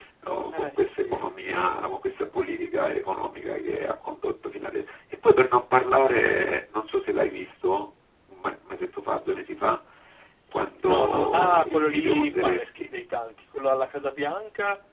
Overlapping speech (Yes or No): Yes